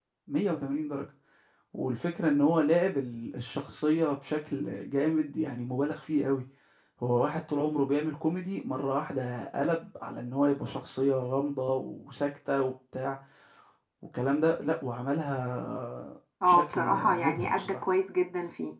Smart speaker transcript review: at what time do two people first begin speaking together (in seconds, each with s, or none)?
16.4 s